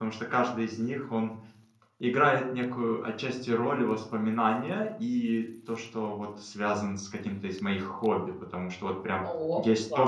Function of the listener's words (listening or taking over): listening